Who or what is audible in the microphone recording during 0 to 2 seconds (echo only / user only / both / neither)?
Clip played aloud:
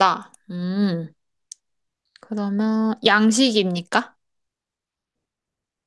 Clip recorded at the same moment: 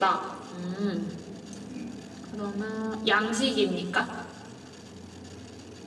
echo only